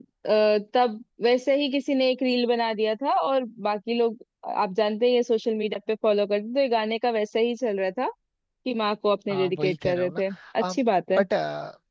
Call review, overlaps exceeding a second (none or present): present